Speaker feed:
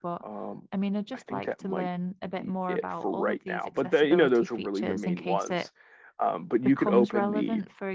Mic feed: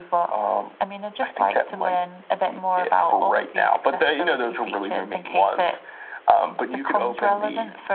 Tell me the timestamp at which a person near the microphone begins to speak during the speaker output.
none

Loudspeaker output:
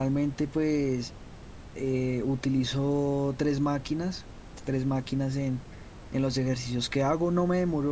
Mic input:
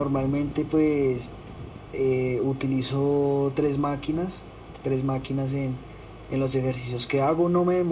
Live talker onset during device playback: none

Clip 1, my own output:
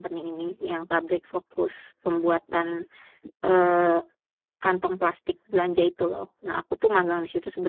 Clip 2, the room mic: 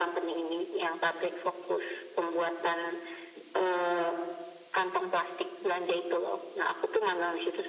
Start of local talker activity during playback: none

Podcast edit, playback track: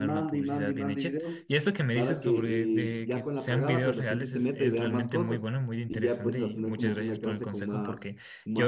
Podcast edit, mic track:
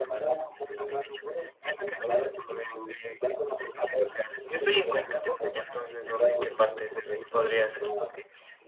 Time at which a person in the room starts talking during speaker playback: 4.5 s

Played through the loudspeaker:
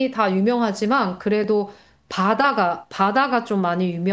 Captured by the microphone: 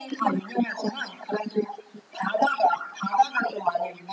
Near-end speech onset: none

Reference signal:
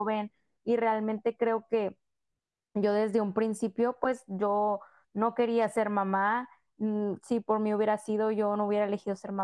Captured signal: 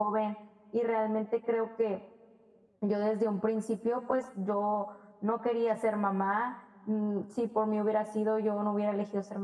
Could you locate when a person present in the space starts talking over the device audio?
none

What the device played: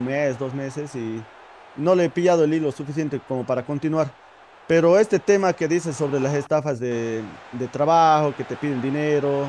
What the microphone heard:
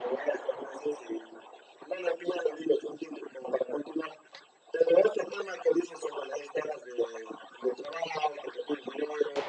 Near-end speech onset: none

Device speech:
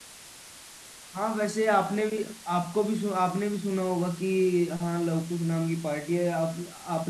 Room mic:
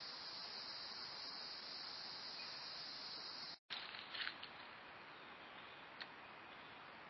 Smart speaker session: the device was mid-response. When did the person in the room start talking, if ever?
none

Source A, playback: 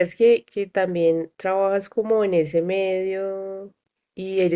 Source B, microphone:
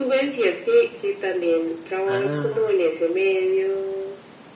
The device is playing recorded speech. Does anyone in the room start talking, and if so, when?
2.1 s

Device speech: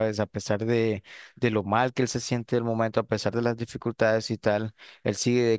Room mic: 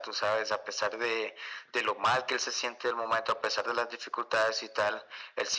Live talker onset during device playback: none

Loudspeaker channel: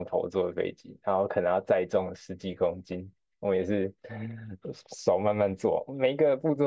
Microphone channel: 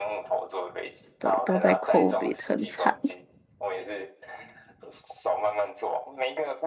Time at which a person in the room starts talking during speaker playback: 1.2 s

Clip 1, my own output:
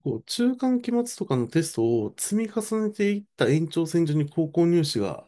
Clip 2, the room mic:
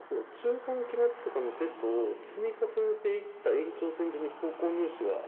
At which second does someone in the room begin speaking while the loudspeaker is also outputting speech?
none

